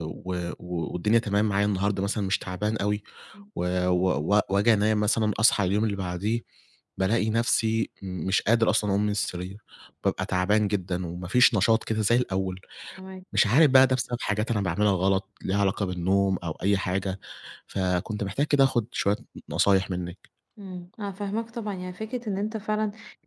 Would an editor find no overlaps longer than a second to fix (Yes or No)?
Yes